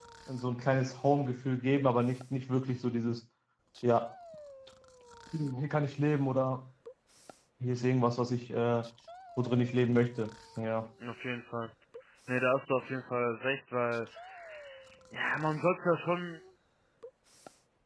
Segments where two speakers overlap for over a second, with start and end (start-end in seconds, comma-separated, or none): none